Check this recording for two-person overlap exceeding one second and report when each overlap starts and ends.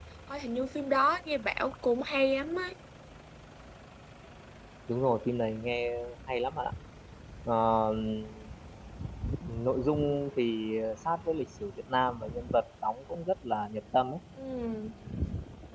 none

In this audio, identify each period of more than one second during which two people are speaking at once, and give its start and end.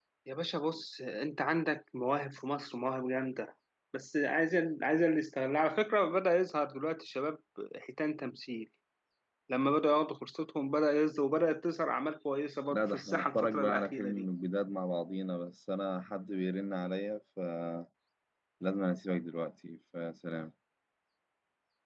12.7-14.2

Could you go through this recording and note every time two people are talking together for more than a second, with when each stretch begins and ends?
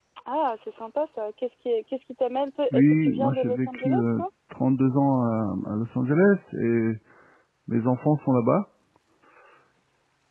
2.7-4.2

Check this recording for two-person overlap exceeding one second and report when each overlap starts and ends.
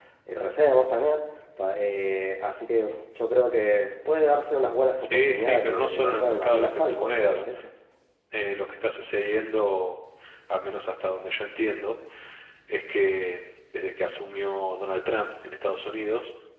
5.0-7.4

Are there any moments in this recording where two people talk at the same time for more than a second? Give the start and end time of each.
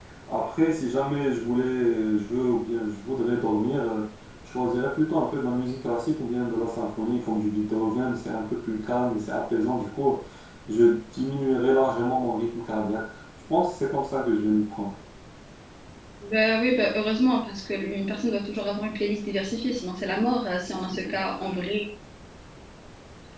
none

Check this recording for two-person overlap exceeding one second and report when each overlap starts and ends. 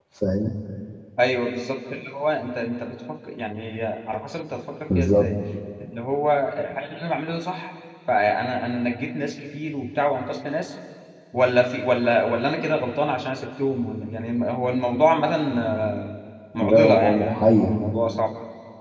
16.6-17.8

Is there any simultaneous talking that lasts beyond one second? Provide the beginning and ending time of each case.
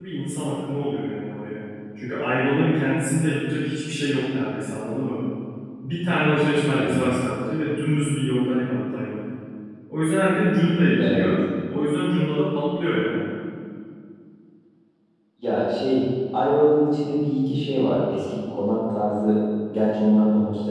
none

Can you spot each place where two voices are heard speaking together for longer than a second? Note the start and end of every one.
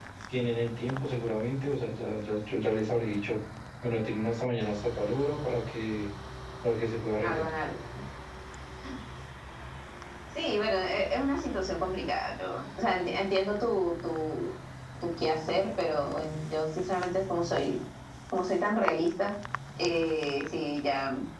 none

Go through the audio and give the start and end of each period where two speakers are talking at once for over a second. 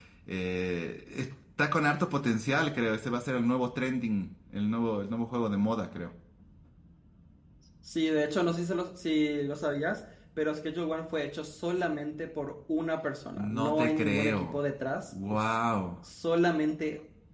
13.3-14.6

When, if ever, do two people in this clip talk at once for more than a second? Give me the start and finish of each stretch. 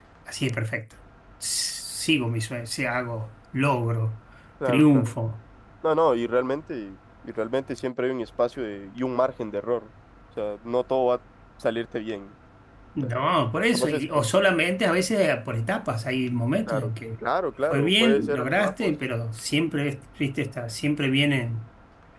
17.7-18.9

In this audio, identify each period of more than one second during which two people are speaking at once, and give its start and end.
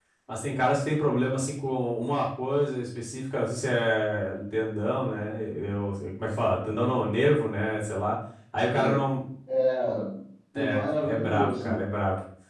10.6-11.8

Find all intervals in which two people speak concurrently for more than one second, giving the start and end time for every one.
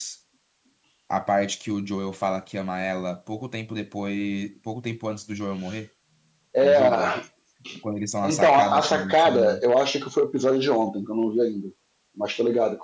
8.2-9.6

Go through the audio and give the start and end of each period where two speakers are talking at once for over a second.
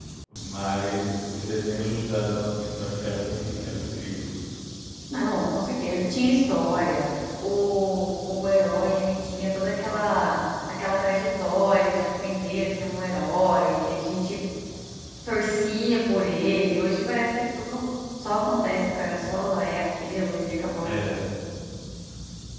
none

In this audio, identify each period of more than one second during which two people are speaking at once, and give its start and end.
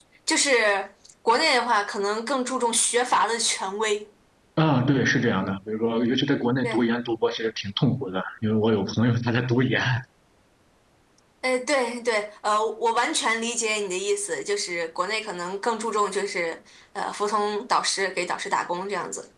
none

